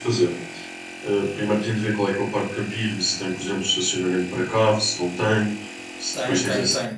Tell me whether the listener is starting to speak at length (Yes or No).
Yes